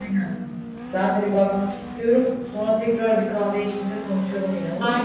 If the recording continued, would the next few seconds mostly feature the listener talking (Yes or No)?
Yes